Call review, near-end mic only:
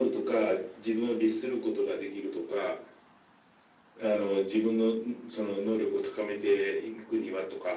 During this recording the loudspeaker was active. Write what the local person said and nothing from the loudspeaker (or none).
none